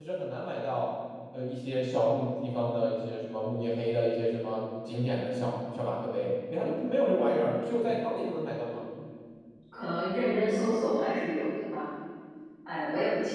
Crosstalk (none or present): none